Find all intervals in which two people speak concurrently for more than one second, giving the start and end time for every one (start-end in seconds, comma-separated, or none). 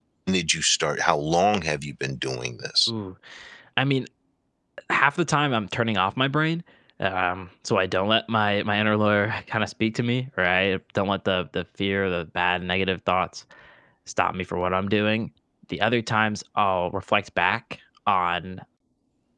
none